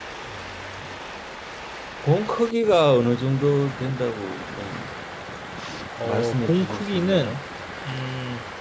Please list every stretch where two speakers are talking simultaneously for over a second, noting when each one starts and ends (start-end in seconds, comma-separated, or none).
6.0-7.4